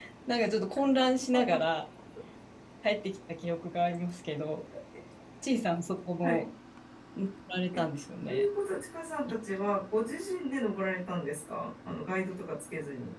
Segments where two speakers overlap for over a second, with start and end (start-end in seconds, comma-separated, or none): none